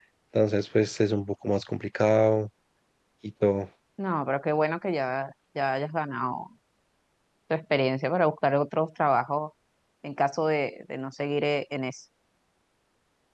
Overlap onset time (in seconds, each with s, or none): none